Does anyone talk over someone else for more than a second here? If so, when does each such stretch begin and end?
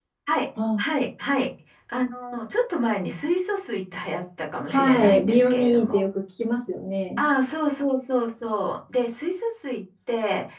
4.7-6.0

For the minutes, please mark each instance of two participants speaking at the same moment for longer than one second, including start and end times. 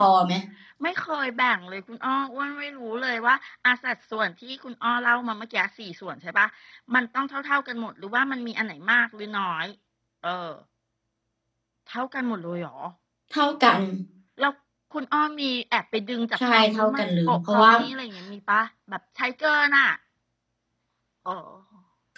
16.4-17.7

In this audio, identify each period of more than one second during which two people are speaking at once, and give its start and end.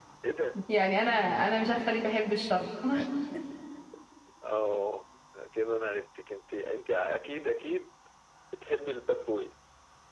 none

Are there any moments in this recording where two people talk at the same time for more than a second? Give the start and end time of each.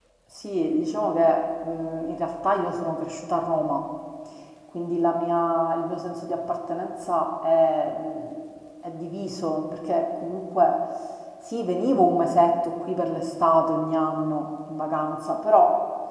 none

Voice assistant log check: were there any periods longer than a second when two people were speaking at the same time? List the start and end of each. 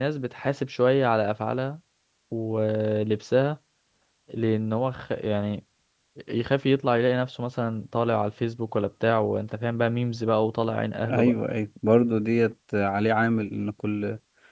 none

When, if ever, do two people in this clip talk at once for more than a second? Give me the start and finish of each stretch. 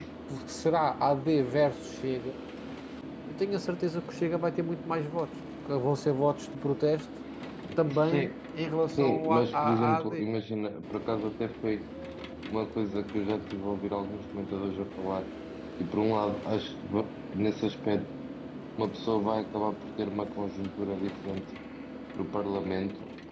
9.0-10.2

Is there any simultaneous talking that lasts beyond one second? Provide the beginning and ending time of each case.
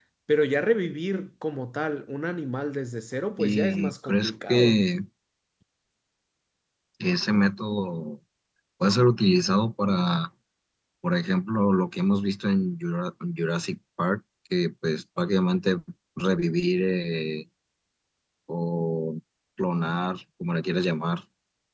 3.4-4.8

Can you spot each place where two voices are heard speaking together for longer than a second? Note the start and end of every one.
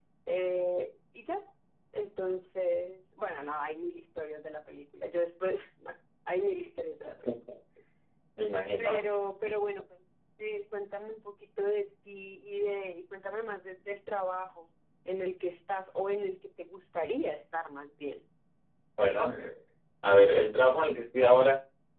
none

